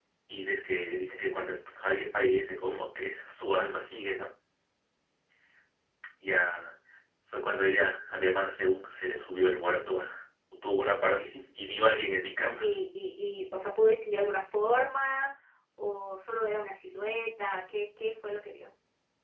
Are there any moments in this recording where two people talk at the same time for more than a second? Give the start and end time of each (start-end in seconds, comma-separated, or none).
none